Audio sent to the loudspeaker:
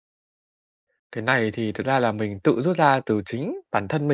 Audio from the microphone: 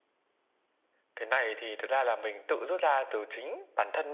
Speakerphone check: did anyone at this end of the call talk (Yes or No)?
No